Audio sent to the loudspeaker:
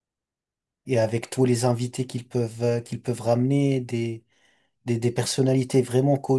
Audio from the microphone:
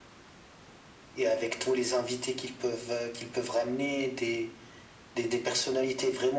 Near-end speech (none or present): none